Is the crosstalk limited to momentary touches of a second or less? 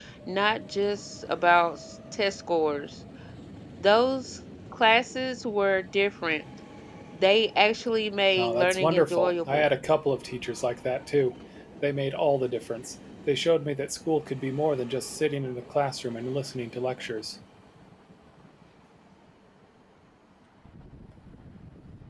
No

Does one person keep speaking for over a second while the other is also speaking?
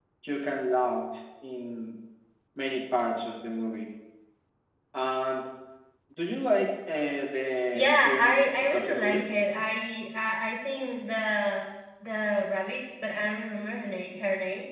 Yes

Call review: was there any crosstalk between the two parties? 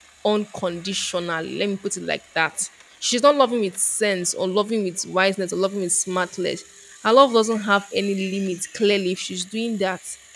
No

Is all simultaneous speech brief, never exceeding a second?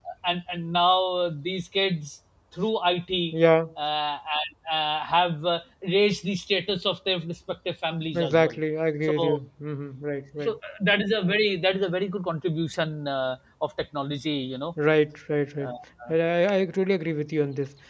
Yes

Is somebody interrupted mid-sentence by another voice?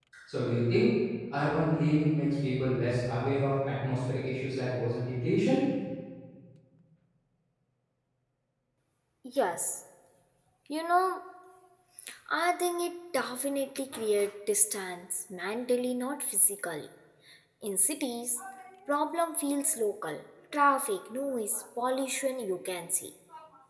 No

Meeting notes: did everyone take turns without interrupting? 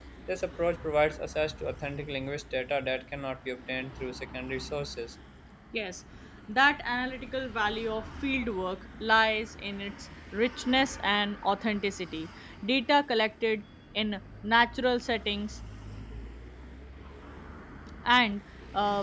Yes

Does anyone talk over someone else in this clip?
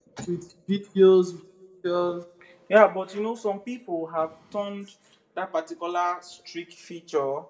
No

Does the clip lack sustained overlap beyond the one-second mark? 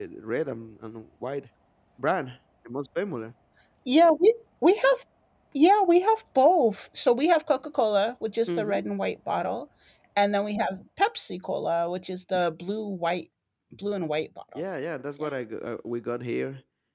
Yes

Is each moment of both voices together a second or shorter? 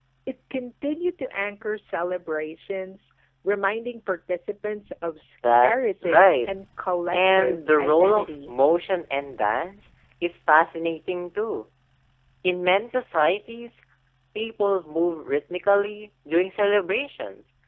No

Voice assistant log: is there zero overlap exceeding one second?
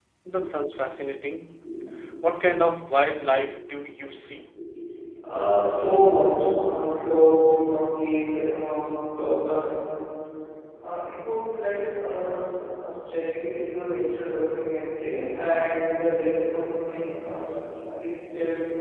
Yes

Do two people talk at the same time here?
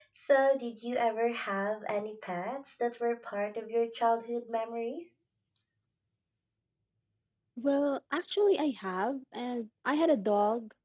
No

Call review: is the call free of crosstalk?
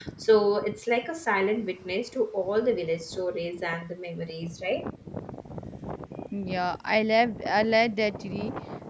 Yes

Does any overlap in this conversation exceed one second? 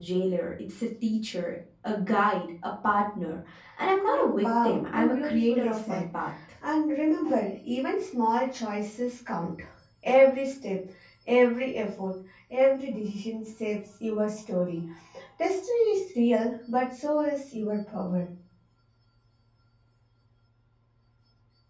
Yes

